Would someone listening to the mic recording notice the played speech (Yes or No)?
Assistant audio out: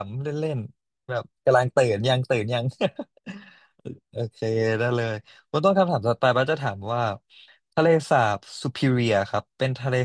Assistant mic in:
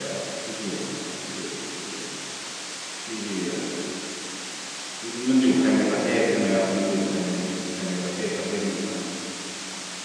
No